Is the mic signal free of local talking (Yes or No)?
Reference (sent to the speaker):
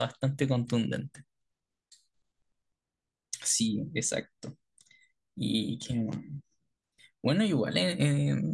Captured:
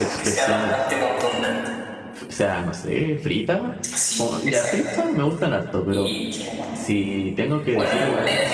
No